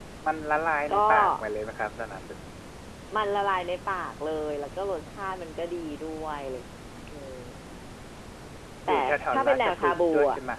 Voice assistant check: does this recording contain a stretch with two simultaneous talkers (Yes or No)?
Yes